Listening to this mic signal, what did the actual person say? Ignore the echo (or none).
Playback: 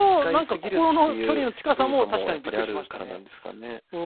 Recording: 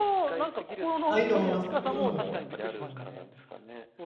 あ、いいと思います。うん。うん。